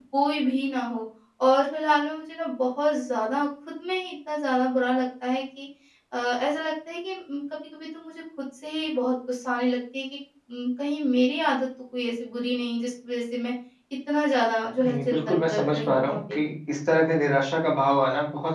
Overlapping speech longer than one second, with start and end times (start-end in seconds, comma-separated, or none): 14.8-16.4